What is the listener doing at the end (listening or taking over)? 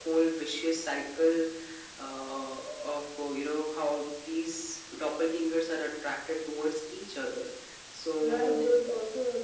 taking over